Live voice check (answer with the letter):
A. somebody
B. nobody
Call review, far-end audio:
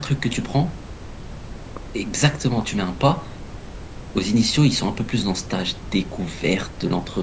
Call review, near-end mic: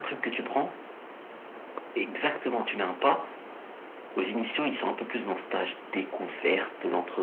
B